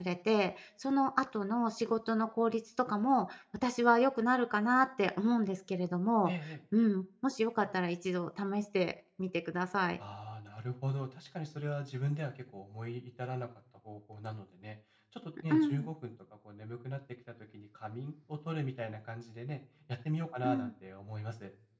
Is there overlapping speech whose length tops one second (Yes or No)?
No